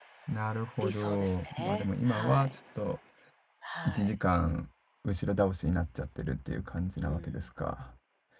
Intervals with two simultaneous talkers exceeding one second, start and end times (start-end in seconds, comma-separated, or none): 0.8-2.6